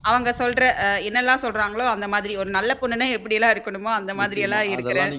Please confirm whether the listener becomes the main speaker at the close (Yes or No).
Yes